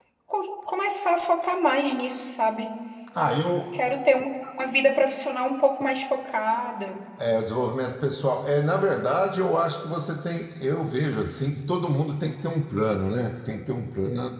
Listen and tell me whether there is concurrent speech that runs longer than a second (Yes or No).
No